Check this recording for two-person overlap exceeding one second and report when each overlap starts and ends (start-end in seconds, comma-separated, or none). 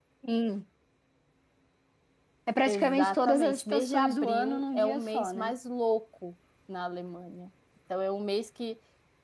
2.6-5.5